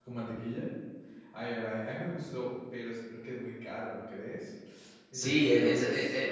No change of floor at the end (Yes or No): No